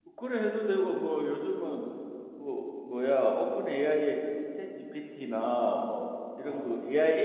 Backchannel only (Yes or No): Yes